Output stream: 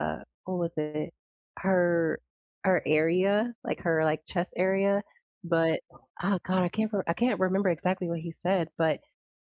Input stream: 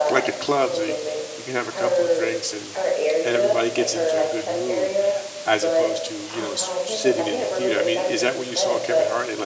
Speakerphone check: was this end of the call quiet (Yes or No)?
No